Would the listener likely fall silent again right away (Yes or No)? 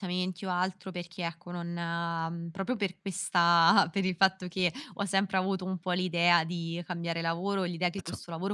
Yes